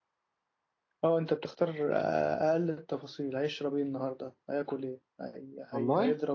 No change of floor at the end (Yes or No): Yes